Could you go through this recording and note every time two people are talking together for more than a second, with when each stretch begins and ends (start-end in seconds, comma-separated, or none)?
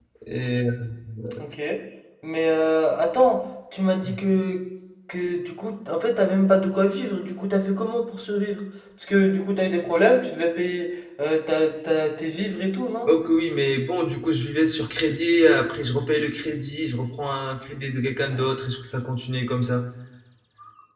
none